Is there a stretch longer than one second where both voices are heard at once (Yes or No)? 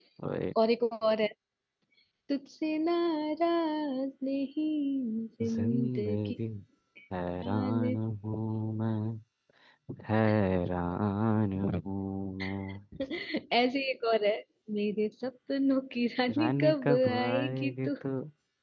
Yes